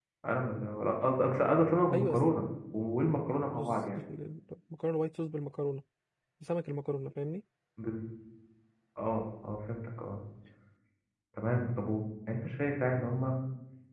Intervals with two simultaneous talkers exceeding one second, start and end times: none

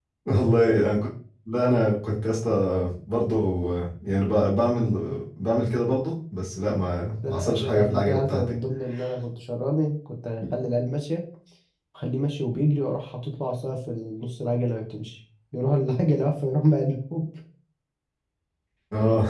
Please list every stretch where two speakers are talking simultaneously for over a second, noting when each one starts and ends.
7.2-8.6

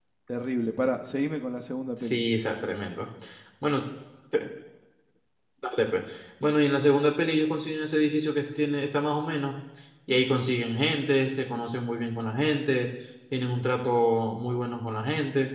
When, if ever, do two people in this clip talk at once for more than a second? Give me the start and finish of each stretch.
none

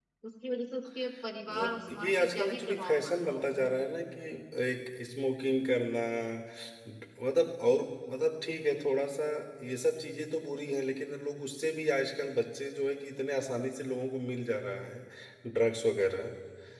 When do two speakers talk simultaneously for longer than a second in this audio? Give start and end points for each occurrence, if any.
1.5-3.7

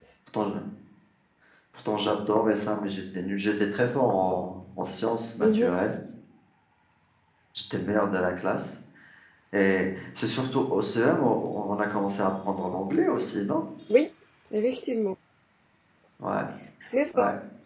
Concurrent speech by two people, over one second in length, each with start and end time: none

